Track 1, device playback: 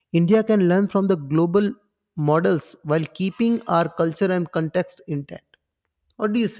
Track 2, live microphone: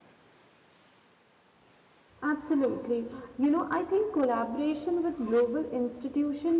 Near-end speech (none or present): present